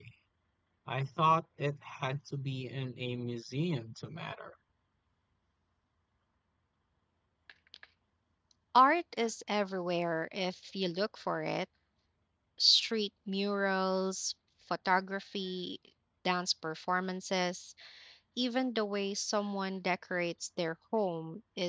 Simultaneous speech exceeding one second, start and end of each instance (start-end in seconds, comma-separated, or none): none